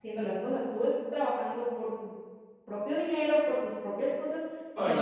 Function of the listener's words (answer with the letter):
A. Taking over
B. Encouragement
A